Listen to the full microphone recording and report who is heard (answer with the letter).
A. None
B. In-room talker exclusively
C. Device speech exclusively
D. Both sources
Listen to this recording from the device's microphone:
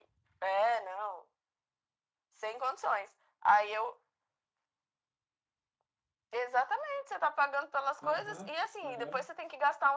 D